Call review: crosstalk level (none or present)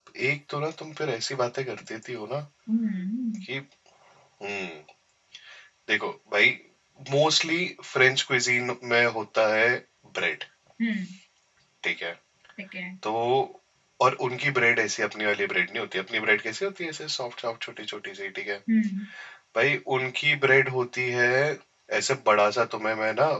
none